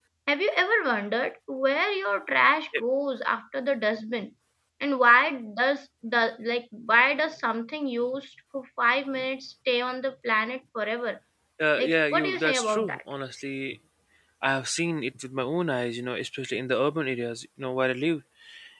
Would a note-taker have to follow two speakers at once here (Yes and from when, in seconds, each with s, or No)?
Yes, from 11.8 s